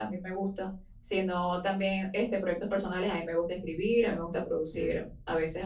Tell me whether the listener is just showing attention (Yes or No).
Yes